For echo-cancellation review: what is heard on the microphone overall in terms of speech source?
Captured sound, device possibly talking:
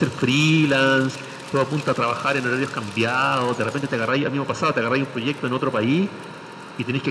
echo only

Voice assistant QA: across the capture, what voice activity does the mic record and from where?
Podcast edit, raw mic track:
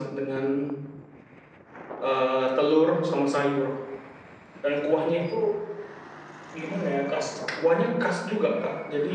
echo only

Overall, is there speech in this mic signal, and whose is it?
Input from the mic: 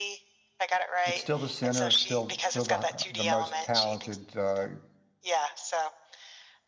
both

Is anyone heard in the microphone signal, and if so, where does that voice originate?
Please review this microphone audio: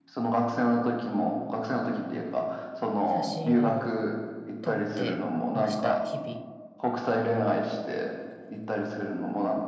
both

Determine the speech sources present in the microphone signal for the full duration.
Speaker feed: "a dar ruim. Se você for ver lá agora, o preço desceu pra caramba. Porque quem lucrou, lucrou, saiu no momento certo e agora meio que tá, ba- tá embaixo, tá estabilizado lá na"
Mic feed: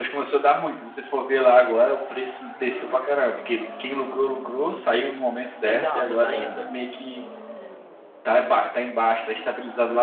both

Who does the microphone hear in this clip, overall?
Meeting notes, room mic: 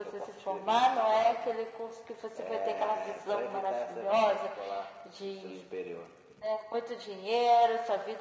echo only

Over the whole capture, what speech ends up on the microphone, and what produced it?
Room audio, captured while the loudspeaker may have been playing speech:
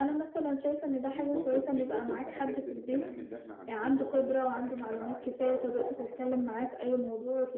both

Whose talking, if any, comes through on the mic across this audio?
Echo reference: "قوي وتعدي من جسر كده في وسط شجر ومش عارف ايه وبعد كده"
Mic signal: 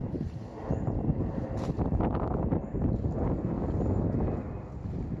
neither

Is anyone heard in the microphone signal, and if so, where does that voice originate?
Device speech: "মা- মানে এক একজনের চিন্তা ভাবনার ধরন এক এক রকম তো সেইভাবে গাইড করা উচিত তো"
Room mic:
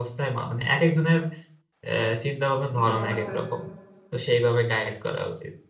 both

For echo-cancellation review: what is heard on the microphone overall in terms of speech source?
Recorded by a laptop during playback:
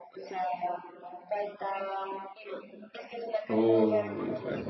both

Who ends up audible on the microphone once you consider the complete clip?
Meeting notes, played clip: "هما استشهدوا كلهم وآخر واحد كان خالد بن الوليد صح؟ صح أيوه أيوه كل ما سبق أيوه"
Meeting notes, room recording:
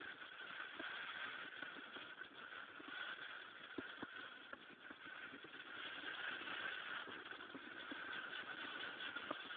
neither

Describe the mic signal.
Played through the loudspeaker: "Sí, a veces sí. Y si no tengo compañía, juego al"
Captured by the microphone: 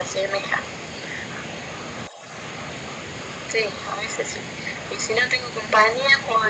echo only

